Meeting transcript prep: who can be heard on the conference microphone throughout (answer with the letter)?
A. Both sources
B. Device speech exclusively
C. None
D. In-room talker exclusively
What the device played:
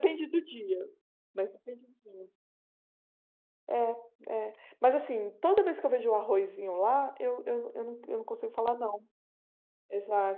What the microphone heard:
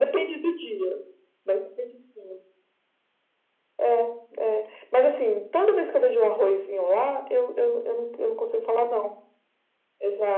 B